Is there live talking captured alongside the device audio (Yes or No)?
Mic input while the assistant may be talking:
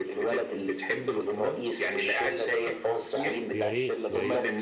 Yes